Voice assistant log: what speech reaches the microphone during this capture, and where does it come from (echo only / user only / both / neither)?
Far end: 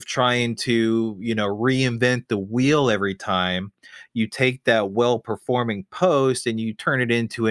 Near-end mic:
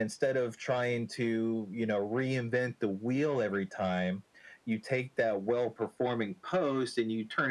echo only